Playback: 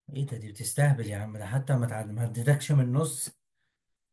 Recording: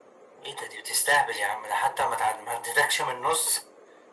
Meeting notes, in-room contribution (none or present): none